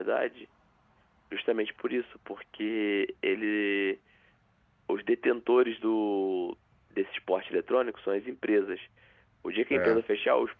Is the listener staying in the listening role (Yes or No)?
Yes